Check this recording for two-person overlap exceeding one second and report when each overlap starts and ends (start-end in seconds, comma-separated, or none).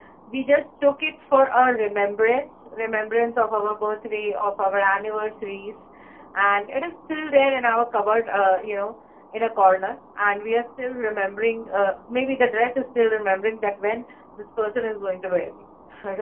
none